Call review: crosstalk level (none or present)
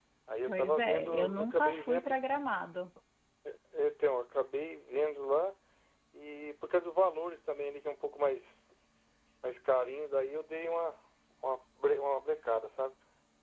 present